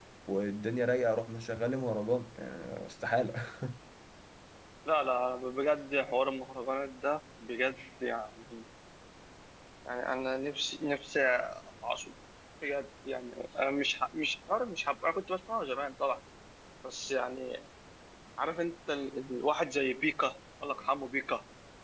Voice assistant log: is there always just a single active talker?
Yes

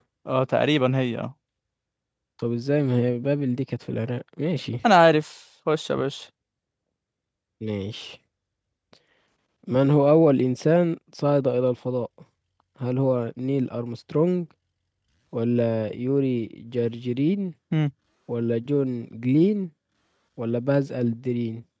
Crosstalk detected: No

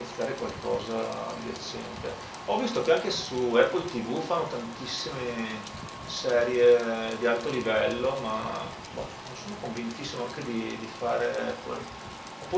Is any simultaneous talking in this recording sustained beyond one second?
No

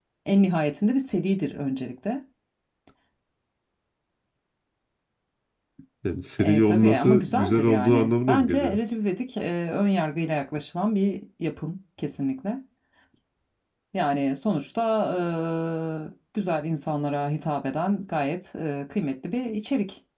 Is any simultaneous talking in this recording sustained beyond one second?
Yes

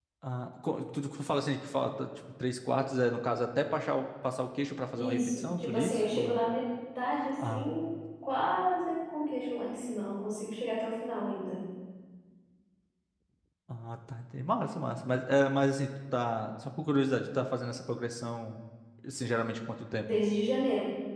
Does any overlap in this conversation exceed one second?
Yes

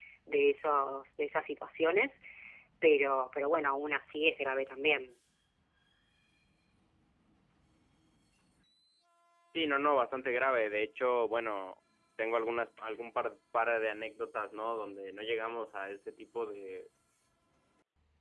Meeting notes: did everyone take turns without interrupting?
Yes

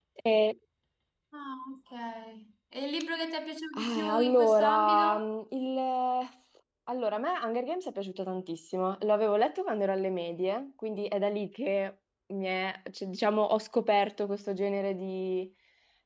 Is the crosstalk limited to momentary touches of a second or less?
No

